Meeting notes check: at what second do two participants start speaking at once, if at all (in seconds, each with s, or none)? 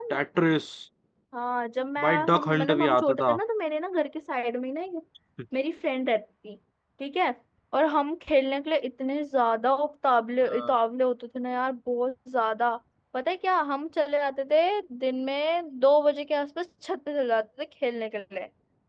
2.0 s